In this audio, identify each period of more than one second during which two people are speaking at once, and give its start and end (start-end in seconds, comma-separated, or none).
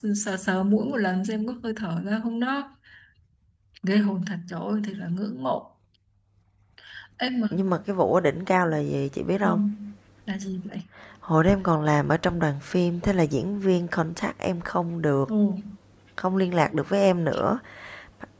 none